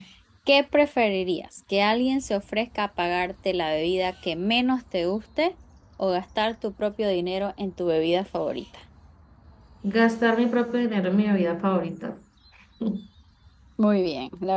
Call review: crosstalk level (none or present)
none